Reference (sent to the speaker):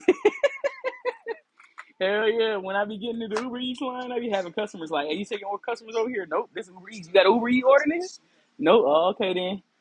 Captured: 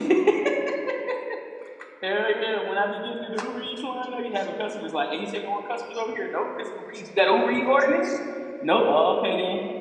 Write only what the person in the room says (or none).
none